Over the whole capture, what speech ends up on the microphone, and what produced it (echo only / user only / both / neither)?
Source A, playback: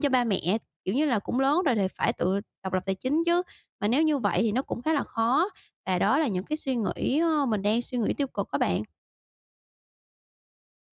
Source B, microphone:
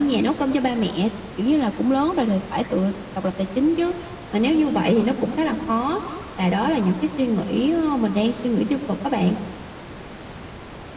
echo only